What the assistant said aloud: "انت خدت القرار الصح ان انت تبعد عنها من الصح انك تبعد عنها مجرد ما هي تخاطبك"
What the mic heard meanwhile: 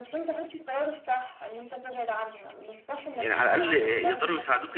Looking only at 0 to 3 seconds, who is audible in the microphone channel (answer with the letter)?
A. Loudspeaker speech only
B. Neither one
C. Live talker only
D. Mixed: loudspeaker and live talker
A